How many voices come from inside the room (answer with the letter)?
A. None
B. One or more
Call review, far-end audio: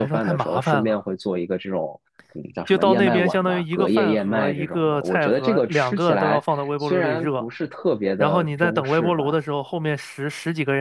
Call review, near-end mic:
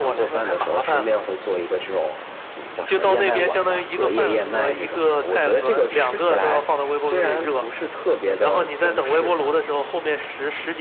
A